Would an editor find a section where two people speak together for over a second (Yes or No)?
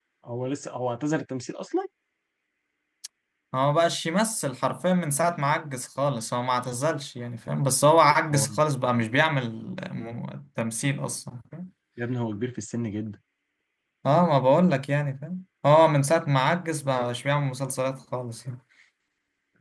No